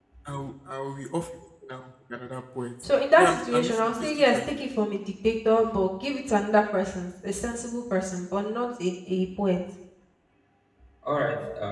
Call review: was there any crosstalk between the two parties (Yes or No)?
Yes